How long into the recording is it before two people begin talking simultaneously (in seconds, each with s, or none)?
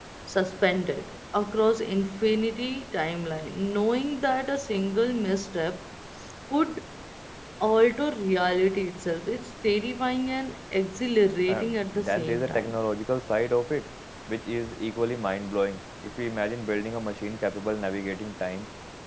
11.5 s